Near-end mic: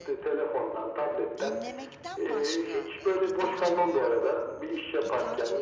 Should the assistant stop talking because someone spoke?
Yes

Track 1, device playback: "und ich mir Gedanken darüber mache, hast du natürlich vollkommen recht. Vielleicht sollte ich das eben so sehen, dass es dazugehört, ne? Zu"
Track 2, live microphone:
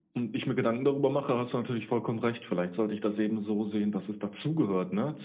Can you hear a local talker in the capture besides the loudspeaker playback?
No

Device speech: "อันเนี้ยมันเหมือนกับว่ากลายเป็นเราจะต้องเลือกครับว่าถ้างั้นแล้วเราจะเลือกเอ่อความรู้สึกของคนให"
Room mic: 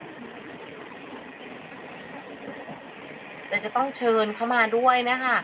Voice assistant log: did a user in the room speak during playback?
Yes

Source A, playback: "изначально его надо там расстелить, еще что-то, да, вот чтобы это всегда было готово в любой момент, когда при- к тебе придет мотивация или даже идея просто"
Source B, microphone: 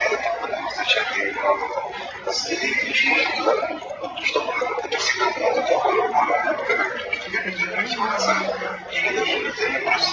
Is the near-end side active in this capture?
Yes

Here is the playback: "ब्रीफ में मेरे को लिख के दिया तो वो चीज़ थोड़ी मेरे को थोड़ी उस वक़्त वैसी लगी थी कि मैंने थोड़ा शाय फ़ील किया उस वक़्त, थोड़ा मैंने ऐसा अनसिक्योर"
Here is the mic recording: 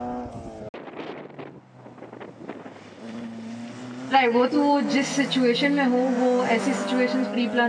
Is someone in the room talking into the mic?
Yes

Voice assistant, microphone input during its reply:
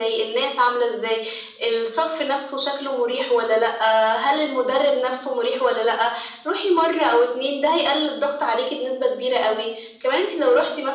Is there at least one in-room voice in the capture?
No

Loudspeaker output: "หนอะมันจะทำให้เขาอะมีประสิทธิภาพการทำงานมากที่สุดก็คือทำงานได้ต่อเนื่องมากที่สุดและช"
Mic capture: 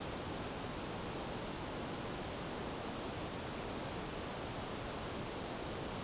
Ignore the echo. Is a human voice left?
No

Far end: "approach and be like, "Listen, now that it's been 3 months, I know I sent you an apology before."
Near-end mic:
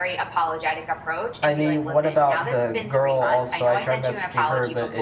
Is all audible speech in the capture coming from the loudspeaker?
No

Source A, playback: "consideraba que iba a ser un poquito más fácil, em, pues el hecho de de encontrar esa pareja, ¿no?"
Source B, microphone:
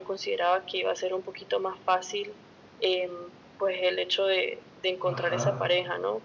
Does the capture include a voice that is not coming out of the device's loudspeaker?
Yes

